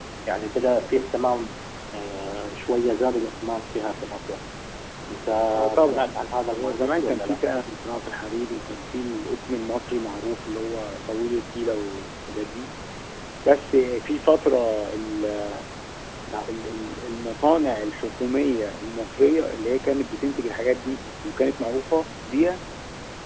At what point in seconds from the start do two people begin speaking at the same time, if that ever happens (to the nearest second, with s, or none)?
6 s